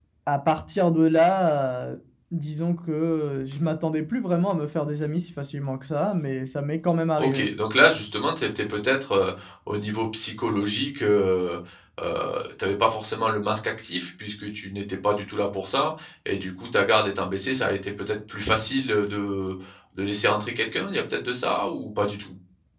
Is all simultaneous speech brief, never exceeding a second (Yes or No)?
Yes